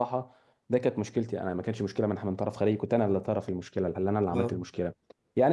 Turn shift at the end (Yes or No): No